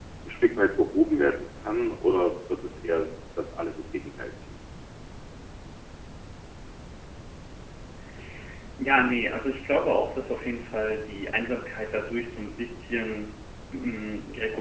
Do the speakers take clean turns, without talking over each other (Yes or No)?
Yes